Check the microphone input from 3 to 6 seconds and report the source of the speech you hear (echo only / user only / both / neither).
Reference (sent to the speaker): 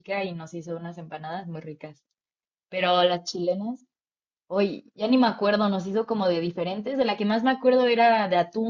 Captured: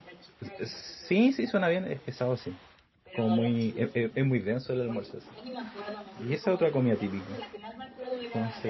both